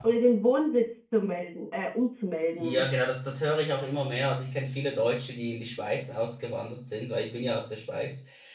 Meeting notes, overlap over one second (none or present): none